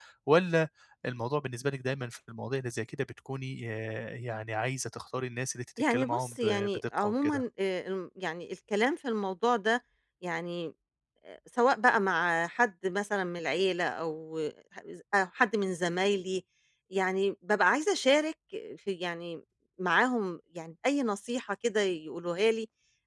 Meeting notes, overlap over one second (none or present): present